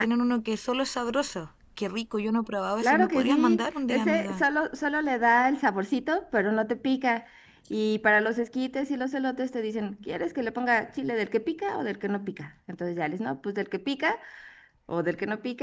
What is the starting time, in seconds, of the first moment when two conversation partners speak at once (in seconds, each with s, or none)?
2.8 s